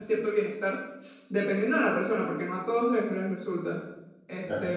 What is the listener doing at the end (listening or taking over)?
listening